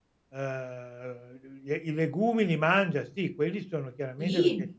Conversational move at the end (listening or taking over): listening